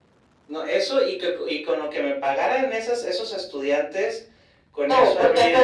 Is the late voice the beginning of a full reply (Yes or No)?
Yes